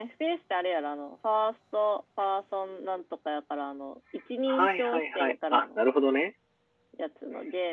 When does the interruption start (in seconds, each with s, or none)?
4.5 s